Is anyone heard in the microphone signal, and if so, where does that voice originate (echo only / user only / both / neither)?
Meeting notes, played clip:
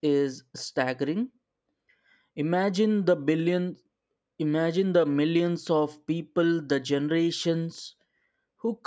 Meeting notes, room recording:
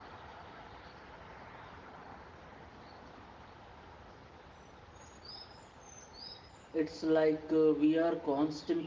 user only